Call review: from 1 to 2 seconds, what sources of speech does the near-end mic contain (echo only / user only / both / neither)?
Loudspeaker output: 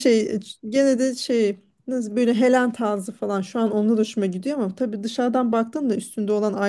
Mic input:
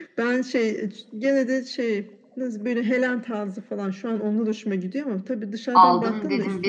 echo only